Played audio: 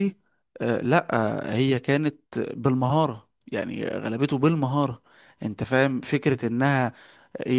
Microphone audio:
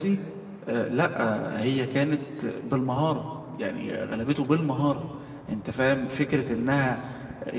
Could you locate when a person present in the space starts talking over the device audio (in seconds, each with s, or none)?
none